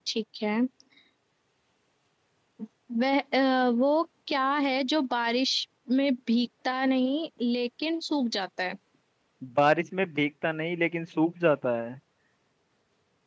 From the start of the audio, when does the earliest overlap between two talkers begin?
none

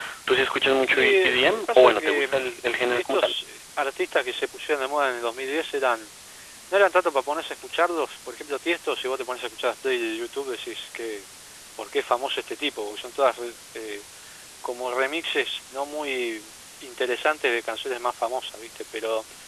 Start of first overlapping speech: 0.9 s

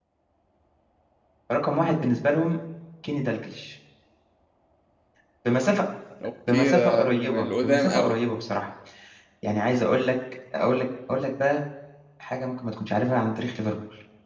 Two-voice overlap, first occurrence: 6.5 s

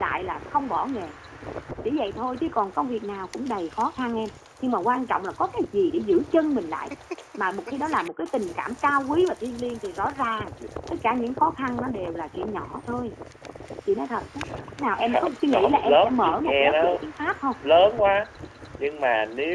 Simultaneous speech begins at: 15.0 s

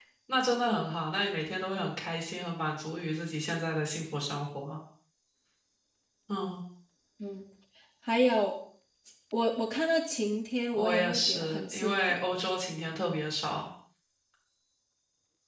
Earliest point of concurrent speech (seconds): 10.7 s

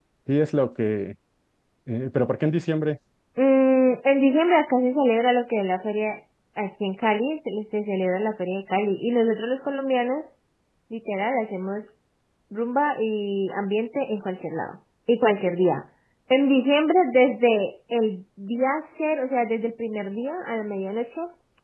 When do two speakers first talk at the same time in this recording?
none

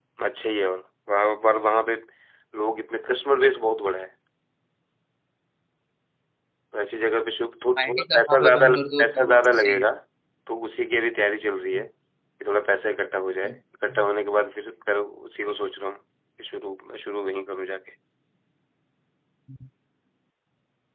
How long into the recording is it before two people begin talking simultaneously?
7.8 s

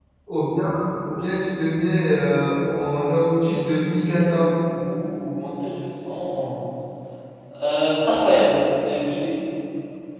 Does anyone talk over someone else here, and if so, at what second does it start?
none

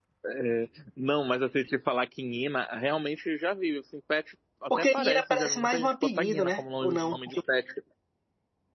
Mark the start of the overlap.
4.7 s

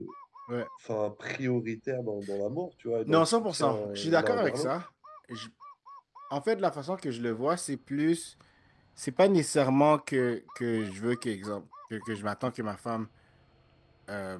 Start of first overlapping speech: 3.1 s

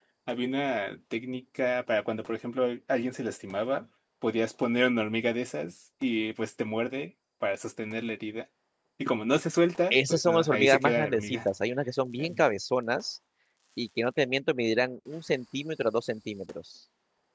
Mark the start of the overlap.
9.9 s

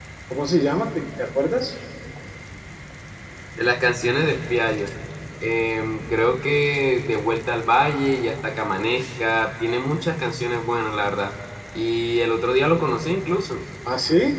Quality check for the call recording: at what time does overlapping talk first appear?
none

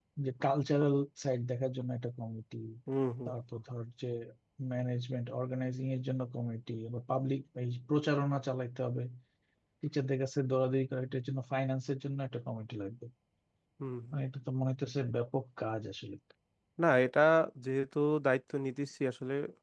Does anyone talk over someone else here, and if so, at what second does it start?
none

